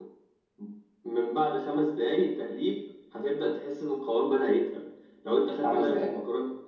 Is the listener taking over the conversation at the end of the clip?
No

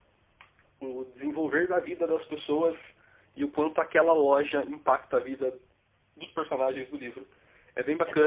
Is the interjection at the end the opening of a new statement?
Yes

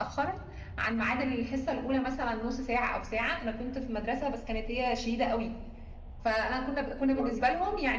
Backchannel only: Yes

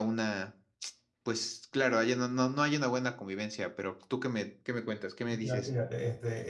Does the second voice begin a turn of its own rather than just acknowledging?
Yes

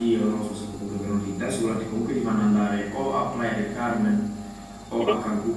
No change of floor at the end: Yes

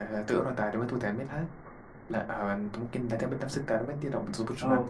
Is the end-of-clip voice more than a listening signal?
Yes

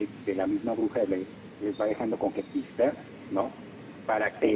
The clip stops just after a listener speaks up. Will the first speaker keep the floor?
Yes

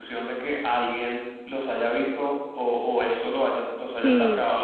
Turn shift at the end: Yes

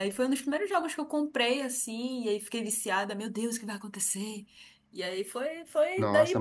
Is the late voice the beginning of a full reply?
Yes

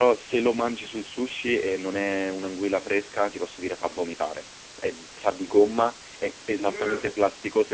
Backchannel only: Yes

